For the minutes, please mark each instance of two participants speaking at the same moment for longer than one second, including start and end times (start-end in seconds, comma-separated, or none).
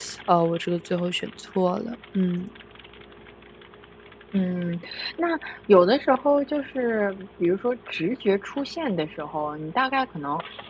none